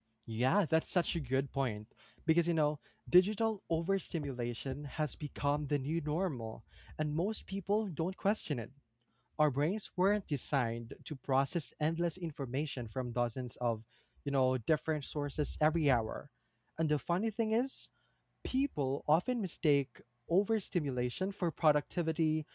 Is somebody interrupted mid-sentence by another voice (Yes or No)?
No